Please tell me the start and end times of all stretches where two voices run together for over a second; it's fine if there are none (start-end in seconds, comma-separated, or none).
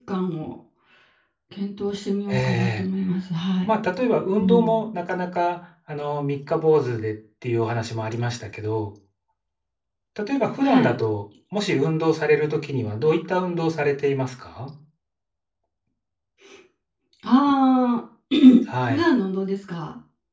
none